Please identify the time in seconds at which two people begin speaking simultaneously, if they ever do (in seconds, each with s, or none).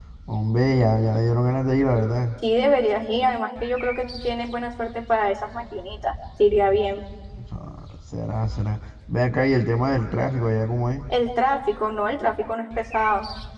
none